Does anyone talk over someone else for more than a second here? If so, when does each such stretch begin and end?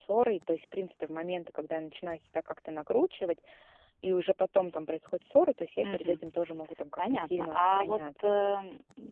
7.0-8.3

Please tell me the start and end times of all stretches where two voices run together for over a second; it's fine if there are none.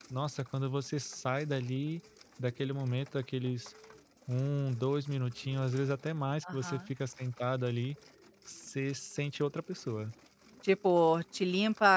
none

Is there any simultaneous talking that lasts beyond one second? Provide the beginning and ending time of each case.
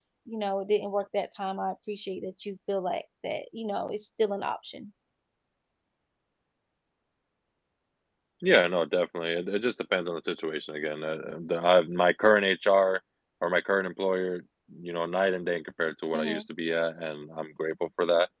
none

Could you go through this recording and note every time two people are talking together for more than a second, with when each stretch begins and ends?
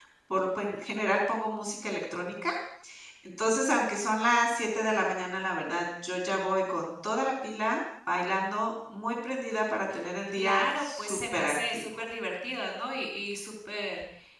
10.3-11.8

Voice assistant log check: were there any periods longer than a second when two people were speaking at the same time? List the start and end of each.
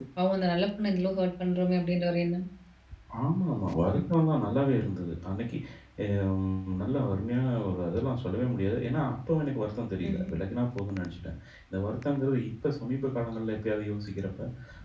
none

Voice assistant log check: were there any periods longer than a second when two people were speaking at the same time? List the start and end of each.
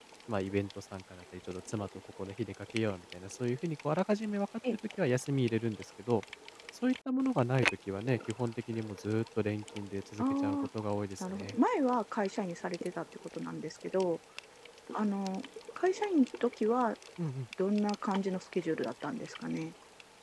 none

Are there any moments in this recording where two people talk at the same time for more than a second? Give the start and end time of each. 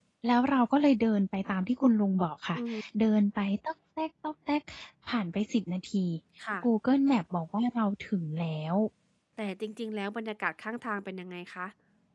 none

